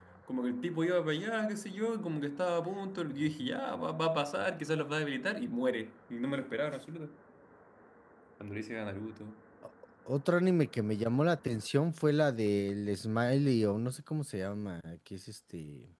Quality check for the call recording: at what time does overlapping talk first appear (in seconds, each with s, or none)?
none